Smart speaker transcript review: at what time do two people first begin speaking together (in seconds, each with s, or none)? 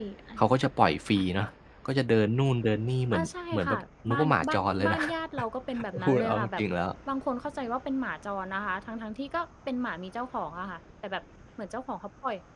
3.1 s